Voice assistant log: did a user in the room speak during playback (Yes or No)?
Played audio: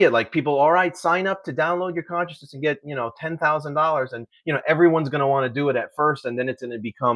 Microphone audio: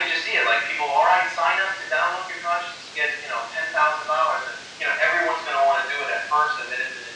No